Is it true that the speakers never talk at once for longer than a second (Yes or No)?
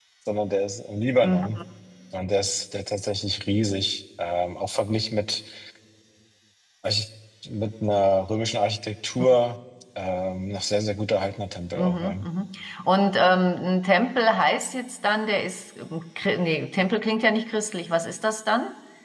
Yes